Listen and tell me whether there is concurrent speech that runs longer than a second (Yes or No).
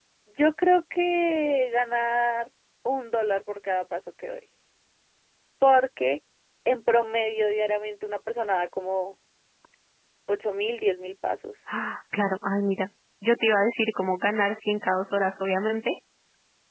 No